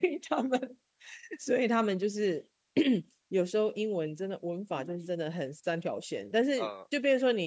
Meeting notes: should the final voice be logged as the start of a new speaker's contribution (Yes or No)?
No